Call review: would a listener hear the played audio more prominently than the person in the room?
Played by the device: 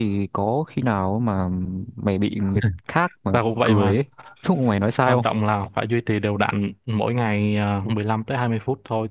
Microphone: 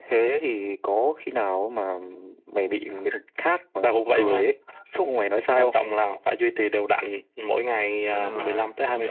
Yes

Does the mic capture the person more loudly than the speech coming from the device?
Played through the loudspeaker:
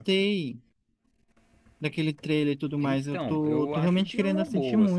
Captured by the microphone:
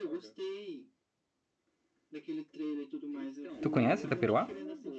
Yes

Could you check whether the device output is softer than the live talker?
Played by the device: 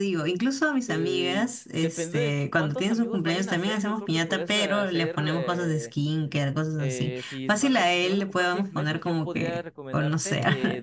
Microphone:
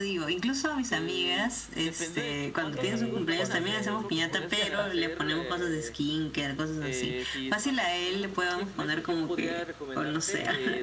No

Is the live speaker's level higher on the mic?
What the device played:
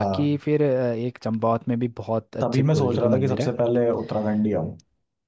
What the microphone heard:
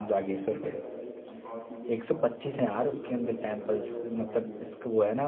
Yes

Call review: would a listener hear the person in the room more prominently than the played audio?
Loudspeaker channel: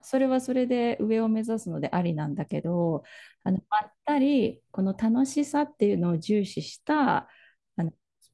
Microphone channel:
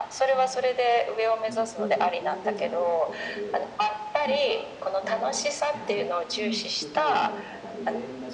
No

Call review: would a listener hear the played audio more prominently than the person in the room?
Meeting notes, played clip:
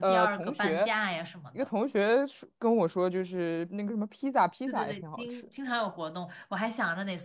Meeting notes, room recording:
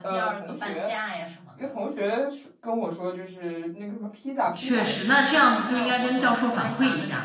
No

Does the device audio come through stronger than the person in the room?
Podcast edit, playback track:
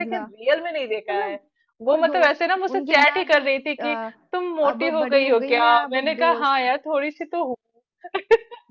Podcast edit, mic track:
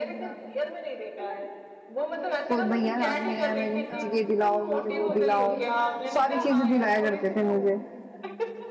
No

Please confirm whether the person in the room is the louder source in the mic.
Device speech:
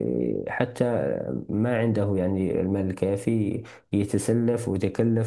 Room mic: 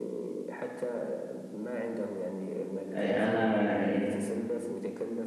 Yes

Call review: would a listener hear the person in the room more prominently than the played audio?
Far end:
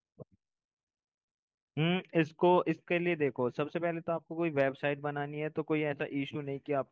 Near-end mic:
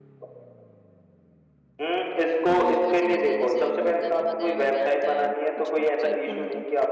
No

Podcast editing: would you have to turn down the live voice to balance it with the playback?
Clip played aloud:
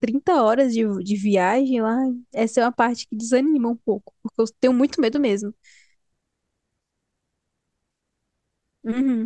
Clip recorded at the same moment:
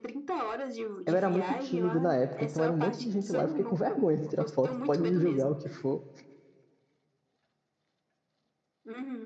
Yes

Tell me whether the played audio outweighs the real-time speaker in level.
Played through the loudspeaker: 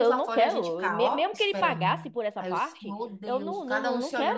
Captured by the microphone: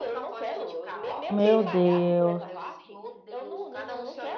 No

